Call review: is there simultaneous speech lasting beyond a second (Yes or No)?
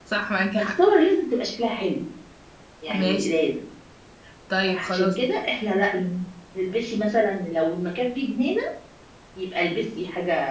No